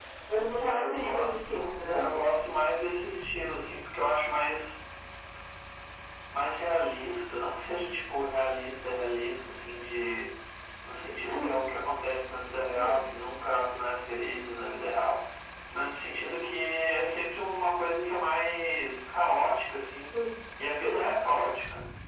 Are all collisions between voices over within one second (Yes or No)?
No